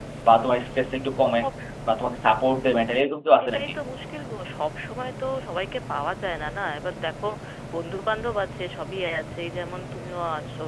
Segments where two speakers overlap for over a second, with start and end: none

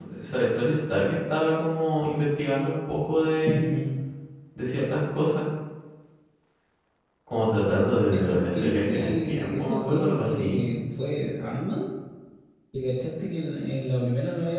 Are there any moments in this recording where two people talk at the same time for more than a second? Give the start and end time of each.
8.1-10.7

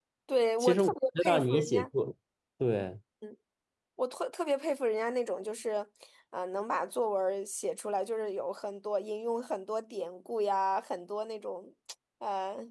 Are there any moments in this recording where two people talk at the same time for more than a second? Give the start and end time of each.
0.6-1.9

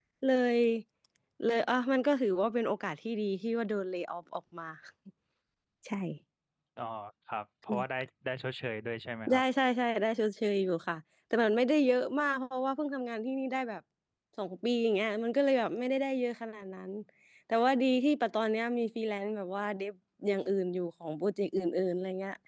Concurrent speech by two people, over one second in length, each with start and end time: none

